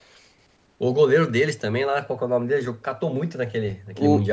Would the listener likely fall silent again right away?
No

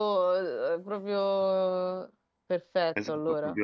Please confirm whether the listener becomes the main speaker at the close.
Yes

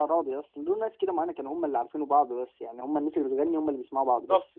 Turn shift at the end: Yes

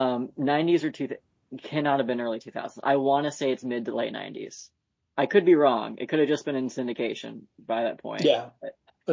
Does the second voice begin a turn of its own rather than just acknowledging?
Yes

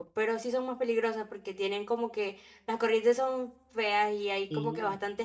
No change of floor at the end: Yes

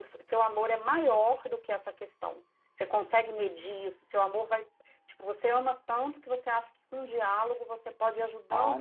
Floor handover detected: Yes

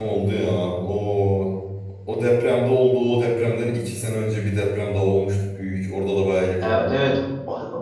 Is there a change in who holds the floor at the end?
Yes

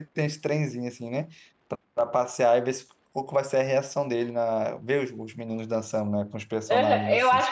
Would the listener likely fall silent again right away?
No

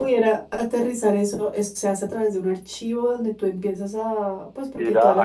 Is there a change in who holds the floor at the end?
Yes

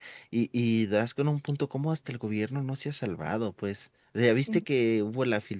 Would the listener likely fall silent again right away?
Yes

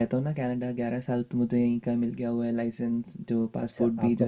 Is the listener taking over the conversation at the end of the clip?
Yes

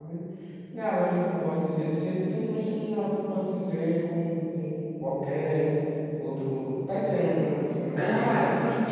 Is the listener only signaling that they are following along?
No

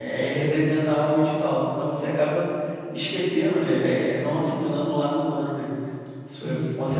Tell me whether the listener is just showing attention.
No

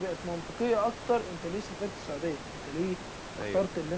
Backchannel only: Yes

